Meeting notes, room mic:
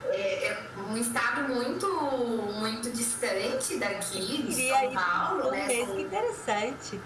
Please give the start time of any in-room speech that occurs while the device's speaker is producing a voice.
4.0 s

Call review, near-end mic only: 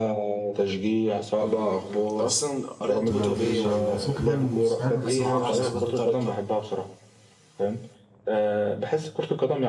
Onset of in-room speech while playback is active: 3.1 s

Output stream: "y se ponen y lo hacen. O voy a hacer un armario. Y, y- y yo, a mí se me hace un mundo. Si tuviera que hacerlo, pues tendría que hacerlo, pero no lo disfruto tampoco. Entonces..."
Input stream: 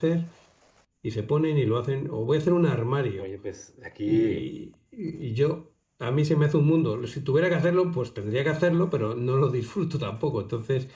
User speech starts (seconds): 3.2 s

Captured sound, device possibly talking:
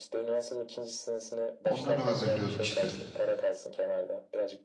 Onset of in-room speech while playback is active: 1.6 s

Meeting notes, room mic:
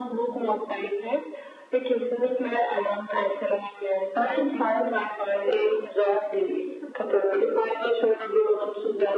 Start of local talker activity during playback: none

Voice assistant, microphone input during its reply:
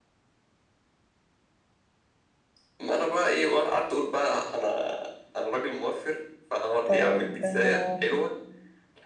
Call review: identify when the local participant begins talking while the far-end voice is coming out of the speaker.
6.8 s

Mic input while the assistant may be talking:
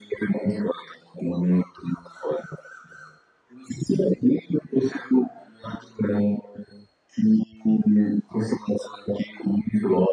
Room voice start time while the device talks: none

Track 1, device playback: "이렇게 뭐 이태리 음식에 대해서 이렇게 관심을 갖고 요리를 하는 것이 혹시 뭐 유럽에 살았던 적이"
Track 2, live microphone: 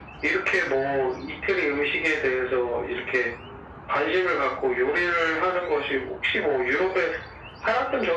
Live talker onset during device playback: none

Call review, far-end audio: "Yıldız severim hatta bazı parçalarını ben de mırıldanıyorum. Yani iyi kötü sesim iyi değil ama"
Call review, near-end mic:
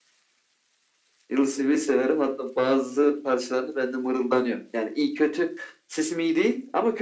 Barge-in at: none

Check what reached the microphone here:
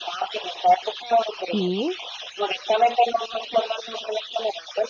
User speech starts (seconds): 1.5 s

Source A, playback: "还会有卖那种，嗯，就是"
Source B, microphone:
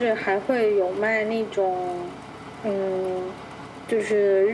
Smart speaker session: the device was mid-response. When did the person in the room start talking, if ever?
none

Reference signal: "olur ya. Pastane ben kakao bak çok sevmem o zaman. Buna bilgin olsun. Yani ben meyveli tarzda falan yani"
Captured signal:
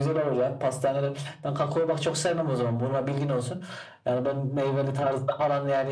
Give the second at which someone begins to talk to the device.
none

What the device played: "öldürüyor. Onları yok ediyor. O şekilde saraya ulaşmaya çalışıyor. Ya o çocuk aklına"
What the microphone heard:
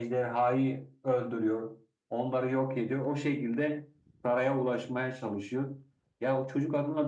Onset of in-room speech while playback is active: none

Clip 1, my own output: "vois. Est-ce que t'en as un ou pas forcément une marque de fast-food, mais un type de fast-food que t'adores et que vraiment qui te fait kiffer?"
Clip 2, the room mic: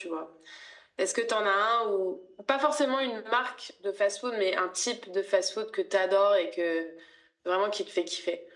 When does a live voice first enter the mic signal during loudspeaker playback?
none

